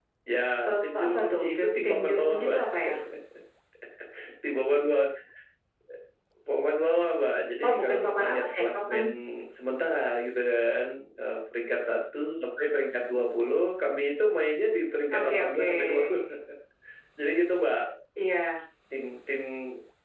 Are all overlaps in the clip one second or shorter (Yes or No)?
No